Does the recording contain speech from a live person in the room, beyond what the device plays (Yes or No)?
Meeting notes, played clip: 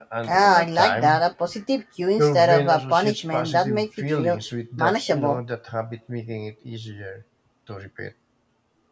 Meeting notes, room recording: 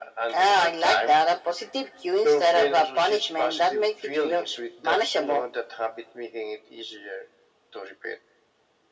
No